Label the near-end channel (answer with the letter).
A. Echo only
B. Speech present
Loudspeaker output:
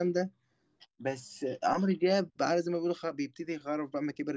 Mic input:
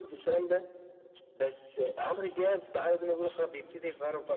A